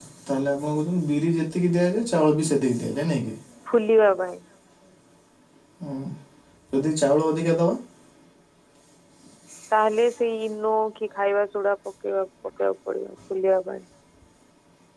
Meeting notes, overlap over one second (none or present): none